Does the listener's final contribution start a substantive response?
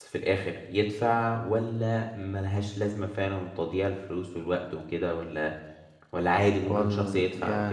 Yes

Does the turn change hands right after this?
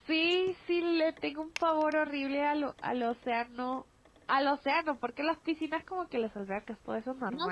Yes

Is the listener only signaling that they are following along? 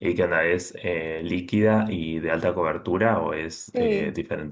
No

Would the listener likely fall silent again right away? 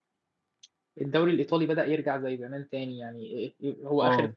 Yes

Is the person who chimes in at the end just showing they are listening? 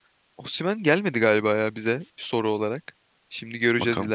Yes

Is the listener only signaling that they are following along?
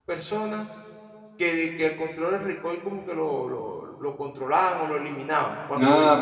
No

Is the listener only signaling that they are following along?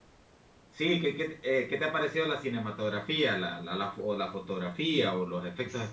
No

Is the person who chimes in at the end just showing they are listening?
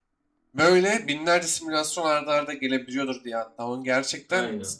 Yes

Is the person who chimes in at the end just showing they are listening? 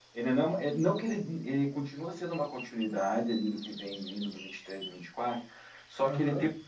Yes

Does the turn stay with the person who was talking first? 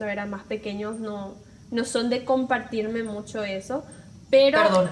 No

